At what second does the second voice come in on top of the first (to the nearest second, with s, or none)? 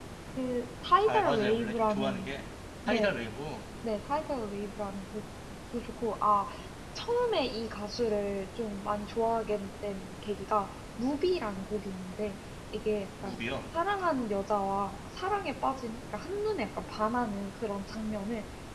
1 s